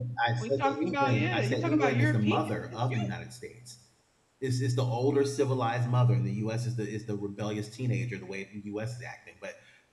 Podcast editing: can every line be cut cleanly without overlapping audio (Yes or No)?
No